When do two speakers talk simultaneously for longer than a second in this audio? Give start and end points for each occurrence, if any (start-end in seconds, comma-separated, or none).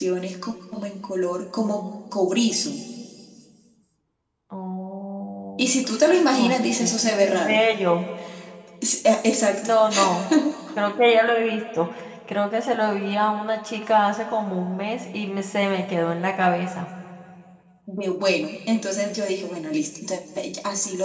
6.3-7.6